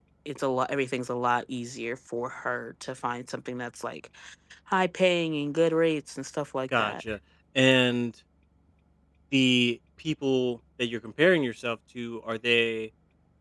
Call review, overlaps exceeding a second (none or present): none